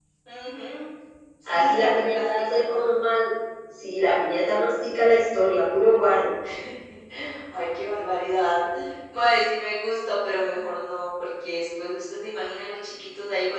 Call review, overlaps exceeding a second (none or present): present